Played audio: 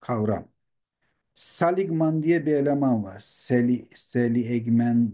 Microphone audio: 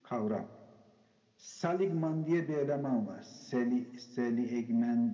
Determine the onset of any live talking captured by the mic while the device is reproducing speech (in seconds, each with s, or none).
none